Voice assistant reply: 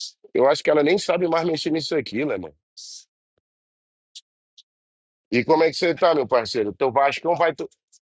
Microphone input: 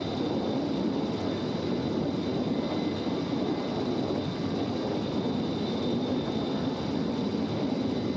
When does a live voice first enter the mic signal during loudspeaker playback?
none

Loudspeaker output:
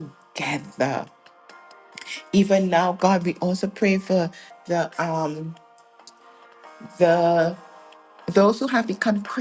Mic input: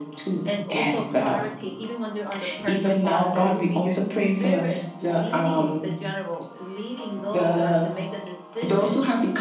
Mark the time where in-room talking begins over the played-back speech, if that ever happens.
0 s

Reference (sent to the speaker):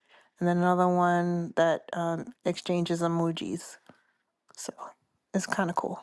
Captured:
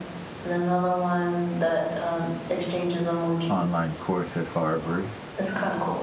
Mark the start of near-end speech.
3 s

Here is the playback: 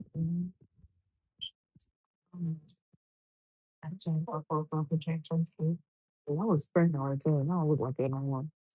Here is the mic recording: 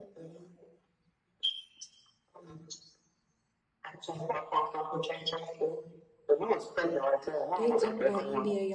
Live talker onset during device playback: 8 s

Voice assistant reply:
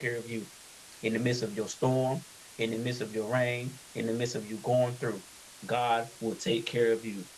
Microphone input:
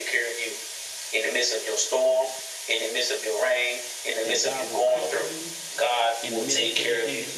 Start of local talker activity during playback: 4 s

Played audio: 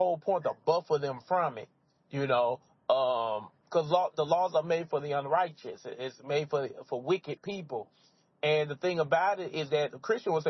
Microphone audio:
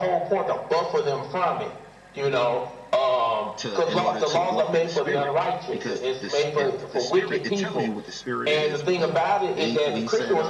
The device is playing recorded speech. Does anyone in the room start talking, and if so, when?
4 s

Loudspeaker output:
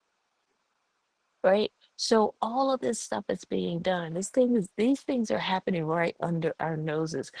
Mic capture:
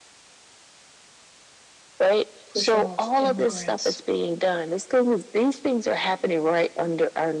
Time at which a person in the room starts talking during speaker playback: 2 s

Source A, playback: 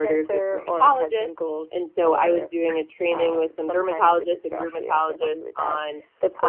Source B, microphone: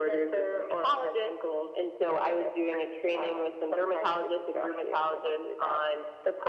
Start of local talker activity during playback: none

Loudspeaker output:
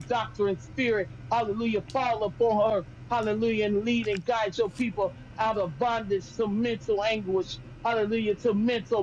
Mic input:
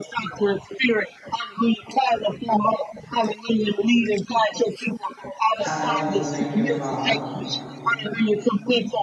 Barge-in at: 6 s

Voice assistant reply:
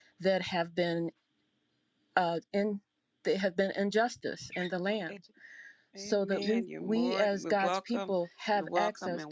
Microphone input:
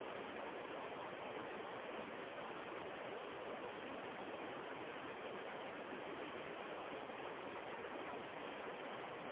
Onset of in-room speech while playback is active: none

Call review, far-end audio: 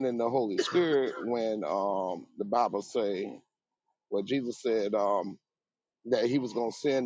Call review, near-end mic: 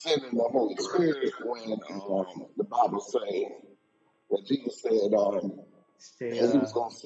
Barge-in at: 6 s

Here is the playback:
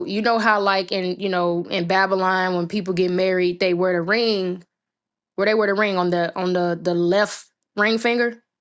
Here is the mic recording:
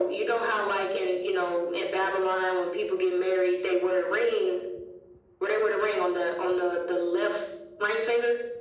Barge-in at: none

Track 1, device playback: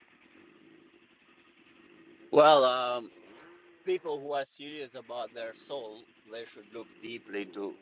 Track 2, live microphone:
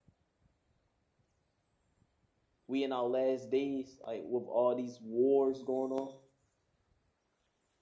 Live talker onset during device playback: 3 s

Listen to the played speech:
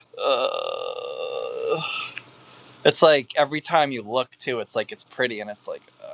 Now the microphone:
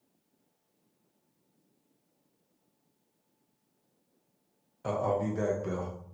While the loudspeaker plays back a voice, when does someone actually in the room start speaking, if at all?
5 s

